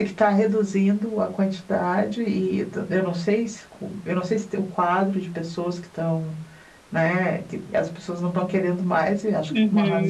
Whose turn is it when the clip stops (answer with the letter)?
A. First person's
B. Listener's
B